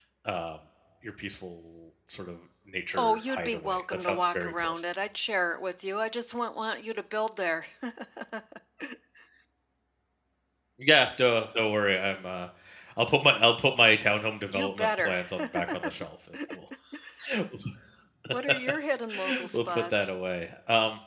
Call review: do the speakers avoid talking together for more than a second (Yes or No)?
No